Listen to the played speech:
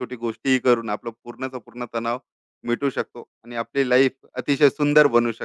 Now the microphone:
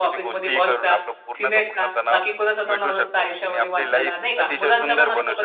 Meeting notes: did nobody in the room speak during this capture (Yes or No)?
No